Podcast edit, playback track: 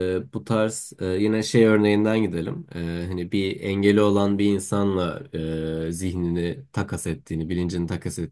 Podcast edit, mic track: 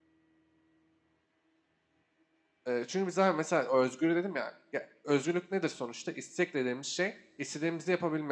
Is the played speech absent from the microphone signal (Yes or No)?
Yes